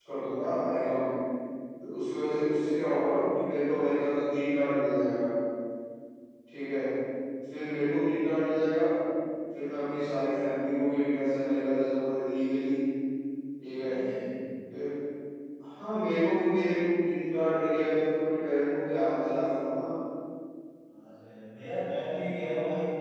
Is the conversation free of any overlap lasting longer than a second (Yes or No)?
Yes